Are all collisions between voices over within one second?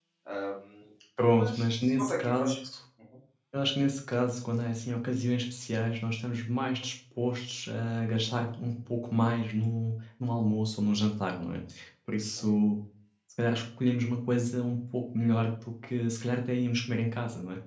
No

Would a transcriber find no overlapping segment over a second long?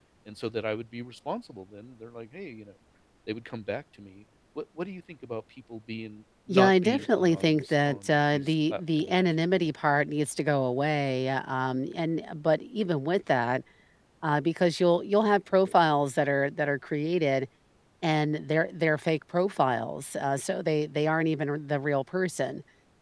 No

